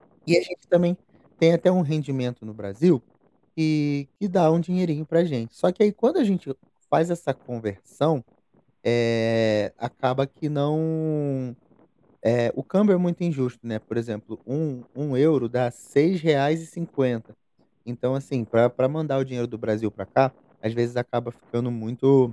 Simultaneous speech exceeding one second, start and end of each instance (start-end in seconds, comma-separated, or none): none